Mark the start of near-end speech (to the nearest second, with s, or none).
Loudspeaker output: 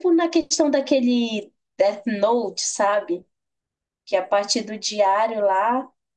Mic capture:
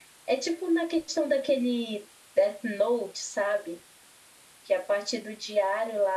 none